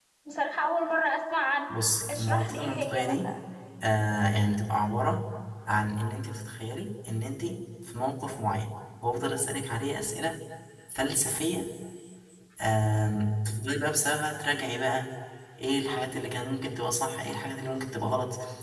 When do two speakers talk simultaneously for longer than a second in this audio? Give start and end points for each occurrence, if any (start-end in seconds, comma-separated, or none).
2.1-3.3